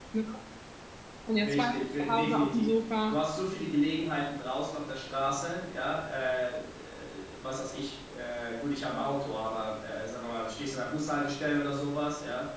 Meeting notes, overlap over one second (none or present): present